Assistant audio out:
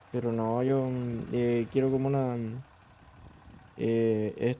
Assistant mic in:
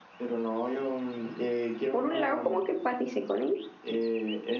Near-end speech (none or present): present